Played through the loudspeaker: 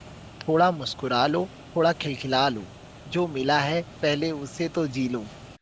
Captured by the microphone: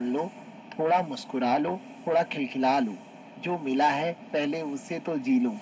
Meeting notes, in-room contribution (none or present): none